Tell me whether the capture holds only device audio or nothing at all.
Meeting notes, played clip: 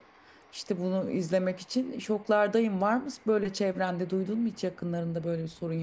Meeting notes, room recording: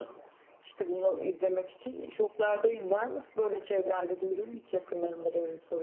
Yes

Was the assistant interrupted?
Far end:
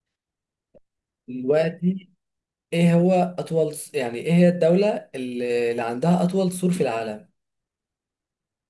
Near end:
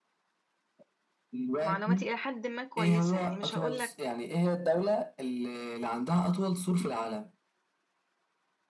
Yes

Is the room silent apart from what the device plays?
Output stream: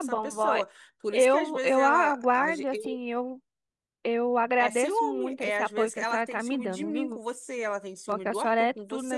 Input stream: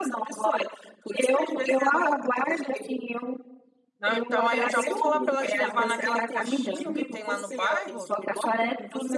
No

